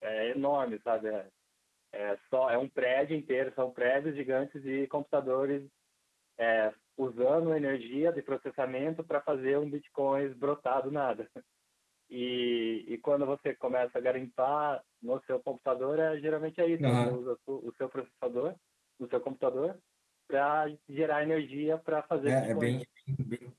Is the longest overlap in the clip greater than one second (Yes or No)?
No